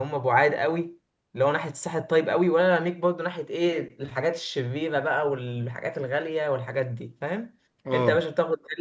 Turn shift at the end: No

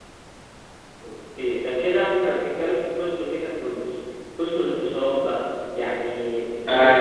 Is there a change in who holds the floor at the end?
Yes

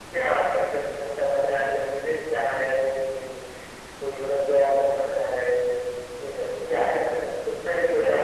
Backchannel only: No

